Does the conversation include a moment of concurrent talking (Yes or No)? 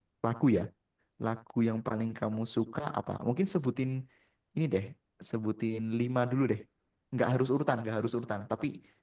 No